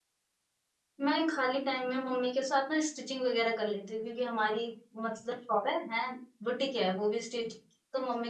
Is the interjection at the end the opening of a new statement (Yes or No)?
No